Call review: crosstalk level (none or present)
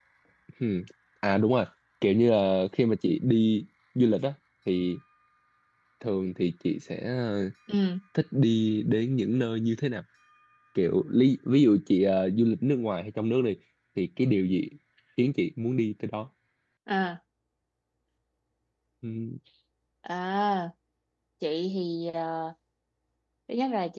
none